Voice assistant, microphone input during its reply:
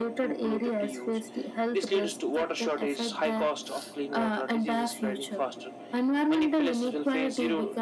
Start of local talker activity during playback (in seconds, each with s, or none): none